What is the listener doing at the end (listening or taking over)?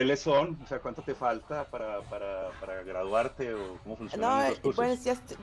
taking over